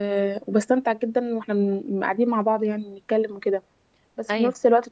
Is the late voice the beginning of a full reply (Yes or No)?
No